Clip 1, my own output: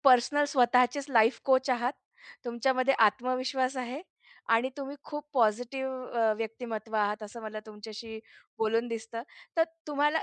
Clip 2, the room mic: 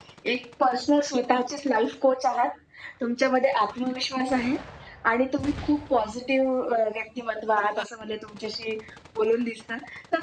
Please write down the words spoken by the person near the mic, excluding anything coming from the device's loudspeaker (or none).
none